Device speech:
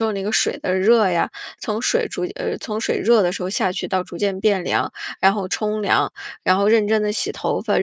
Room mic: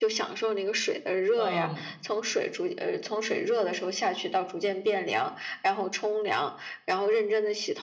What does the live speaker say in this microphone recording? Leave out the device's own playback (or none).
呃，